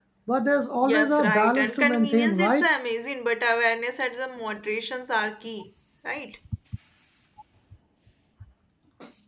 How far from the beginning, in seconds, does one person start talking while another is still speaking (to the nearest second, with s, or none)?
1 s